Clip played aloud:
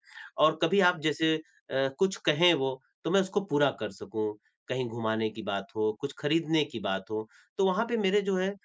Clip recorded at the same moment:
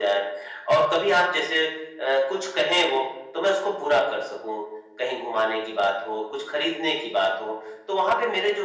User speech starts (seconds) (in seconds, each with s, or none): none